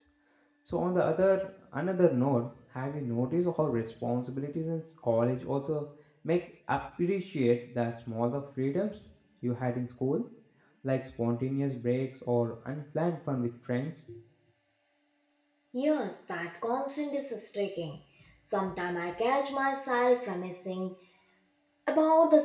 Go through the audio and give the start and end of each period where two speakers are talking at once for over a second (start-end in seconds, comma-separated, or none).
none